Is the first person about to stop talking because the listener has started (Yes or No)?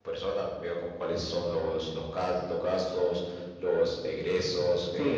Yes